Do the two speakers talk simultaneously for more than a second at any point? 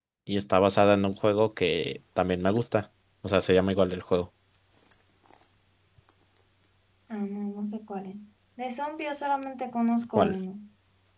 No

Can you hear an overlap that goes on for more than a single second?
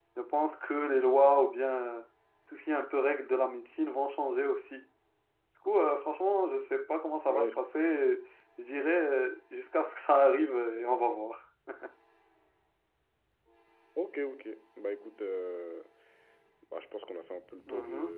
No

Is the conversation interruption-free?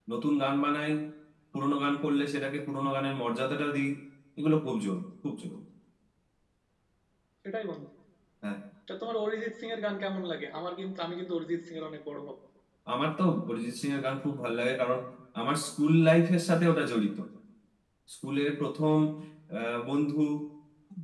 Yes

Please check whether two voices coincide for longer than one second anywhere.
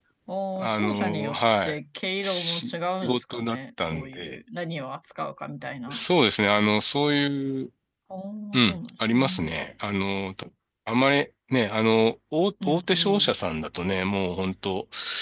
Yes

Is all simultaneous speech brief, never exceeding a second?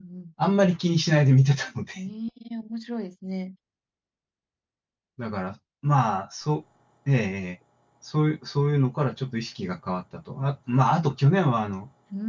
Yes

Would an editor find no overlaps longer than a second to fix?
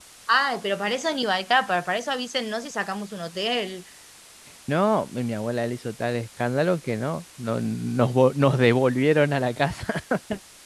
Yes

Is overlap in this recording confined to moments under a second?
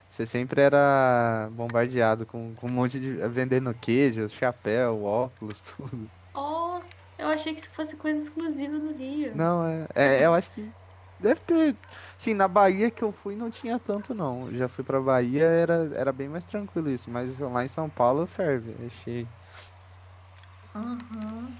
Yes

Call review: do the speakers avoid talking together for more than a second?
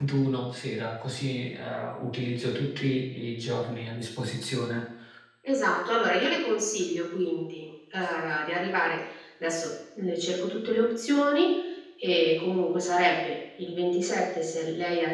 Yes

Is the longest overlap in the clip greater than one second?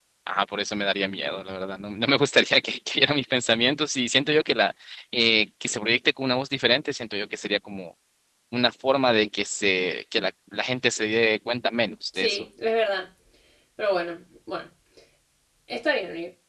No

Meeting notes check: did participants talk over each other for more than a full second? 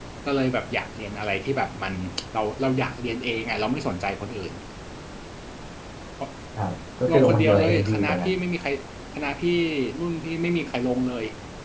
Yes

